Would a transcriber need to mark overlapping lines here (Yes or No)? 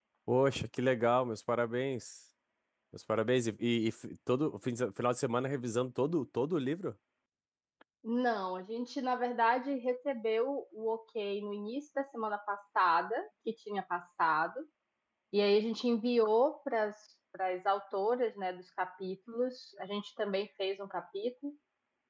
No